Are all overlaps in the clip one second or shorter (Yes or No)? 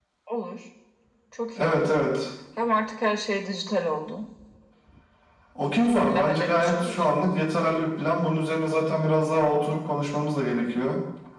No